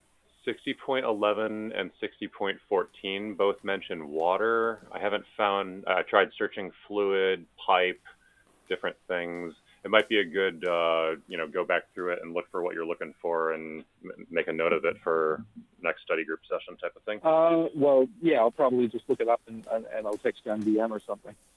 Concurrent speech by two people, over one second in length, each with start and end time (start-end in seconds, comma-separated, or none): none